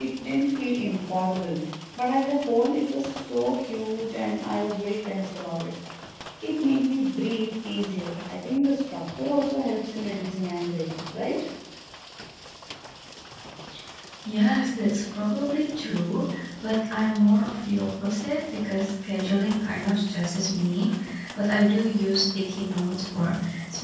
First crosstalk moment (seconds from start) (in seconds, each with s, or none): none